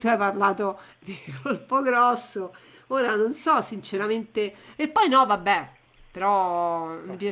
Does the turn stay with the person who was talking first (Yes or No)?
Yes